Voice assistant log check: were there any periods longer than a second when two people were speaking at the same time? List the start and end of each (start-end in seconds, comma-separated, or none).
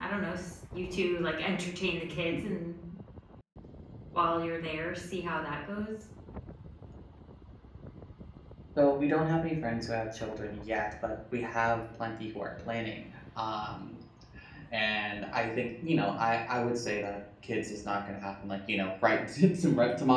none